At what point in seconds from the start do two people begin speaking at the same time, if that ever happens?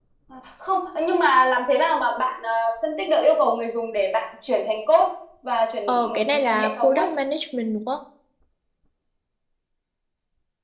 5.9 s

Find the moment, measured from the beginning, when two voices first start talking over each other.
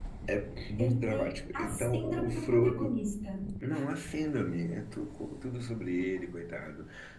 0.8 s

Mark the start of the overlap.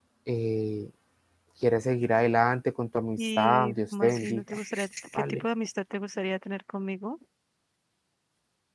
3.2 s

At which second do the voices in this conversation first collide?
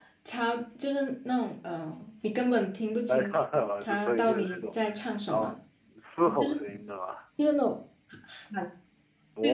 3.1 s

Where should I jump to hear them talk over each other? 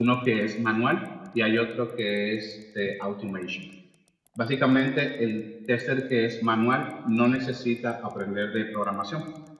none

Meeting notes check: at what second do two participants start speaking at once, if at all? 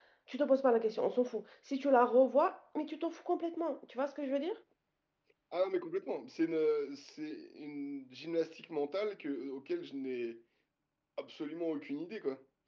none

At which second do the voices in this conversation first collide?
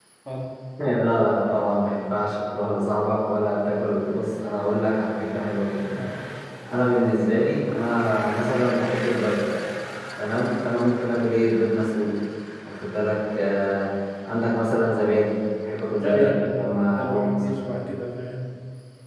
16.0 s

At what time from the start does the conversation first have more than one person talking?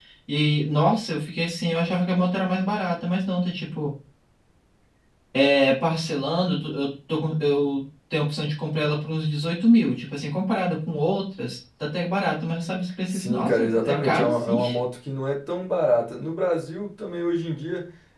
13.1 s

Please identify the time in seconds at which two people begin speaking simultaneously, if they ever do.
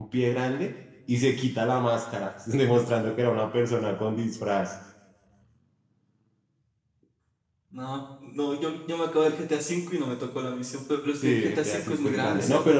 11.2 s

